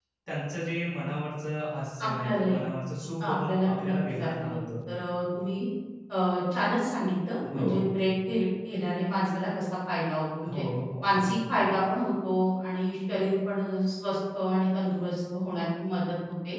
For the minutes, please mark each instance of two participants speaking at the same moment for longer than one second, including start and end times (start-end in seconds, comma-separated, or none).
3.2-4.6